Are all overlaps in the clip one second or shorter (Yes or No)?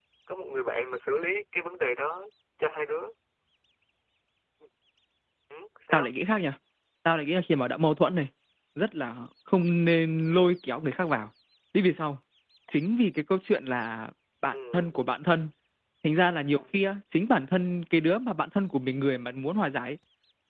Yes